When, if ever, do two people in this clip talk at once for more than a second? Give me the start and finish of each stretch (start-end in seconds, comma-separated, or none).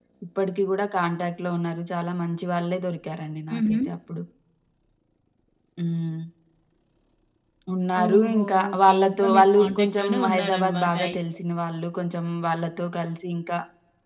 8.0-11.2